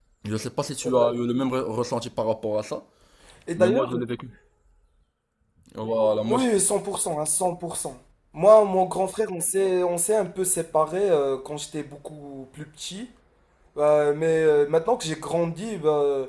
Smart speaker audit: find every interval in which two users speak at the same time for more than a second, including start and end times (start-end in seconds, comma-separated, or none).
none